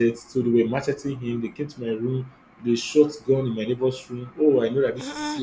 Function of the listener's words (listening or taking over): listening